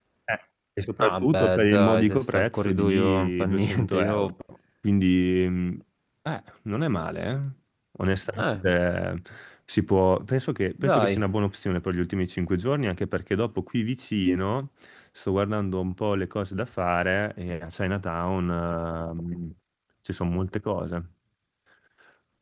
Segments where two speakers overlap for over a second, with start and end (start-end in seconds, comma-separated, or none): 1.0-4.3